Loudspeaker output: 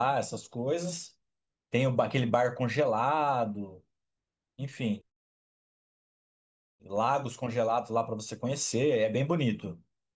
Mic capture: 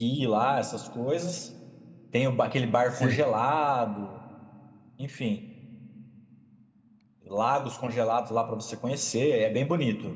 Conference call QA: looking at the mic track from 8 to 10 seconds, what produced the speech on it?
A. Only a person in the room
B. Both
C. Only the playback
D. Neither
C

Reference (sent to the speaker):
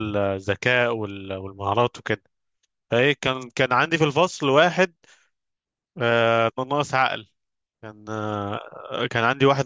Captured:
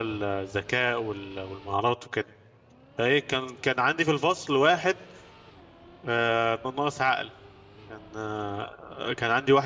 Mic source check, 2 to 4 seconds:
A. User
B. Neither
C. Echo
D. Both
C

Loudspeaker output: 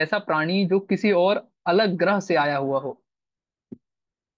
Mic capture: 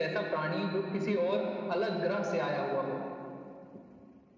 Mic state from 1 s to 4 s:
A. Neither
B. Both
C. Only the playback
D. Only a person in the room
C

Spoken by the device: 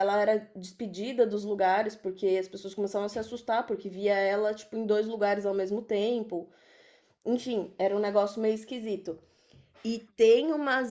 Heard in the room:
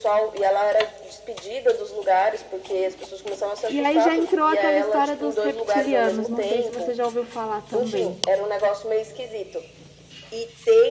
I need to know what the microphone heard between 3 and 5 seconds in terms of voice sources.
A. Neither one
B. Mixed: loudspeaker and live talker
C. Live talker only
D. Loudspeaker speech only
B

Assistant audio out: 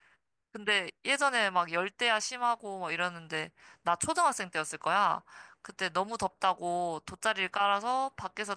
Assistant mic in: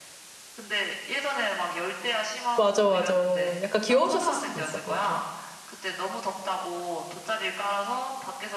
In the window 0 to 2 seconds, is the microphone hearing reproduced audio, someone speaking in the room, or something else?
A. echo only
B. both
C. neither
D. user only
A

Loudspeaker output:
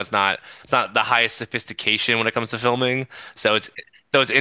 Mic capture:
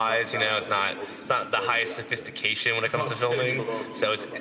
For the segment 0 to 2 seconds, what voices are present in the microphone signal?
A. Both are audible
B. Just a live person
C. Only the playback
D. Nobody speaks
A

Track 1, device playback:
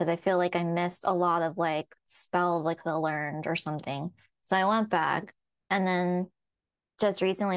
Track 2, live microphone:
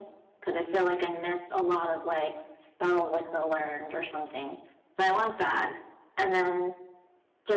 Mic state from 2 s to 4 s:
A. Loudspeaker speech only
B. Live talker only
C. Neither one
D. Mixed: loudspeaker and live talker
A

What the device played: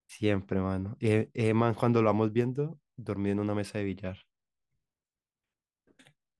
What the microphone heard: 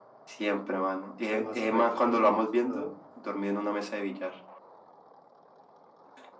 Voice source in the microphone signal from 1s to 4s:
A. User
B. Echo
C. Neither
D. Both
D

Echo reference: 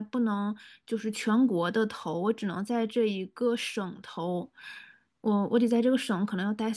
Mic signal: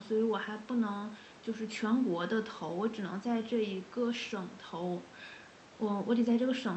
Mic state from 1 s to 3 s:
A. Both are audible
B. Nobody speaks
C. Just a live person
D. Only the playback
D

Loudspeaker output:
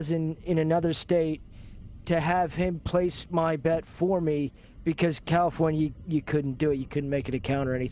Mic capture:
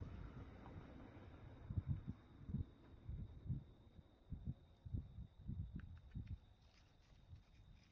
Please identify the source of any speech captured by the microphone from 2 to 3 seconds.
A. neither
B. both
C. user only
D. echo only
A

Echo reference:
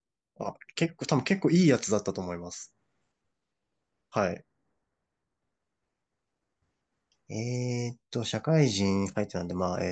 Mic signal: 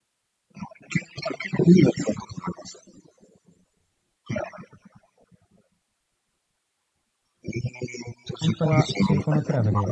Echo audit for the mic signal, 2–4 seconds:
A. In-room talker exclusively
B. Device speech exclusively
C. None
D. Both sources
B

